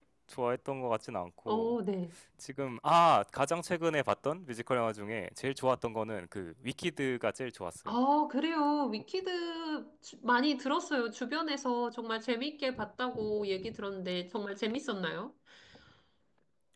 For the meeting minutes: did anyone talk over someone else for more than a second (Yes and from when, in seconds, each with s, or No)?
No